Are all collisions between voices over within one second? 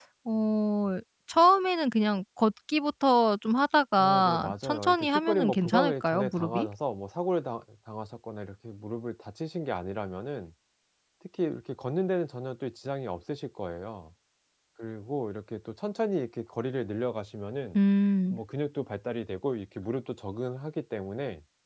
No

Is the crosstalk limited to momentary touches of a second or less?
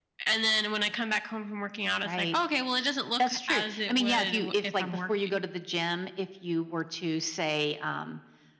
No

